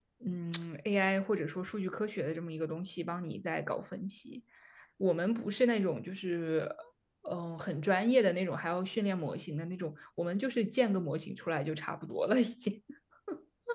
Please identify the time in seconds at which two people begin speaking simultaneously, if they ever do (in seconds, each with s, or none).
none